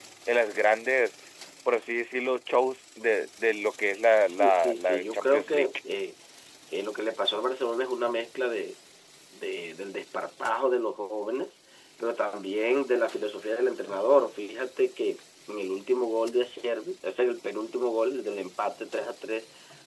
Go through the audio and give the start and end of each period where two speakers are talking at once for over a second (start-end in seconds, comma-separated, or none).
4.2-5.7